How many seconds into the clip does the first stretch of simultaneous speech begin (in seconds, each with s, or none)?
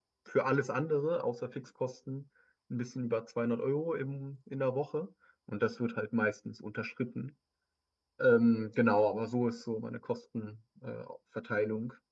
none